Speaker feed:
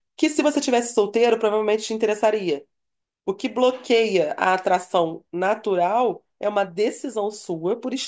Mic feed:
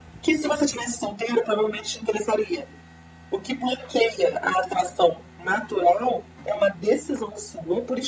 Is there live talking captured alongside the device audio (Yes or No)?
No